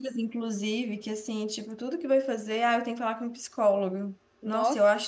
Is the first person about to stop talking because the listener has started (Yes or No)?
No